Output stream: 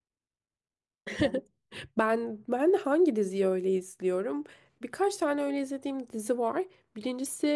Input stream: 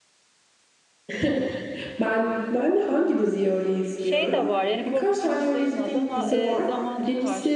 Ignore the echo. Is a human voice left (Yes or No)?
Yes